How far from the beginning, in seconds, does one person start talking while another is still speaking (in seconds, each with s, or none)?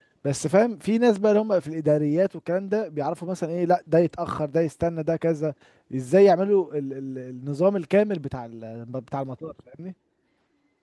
none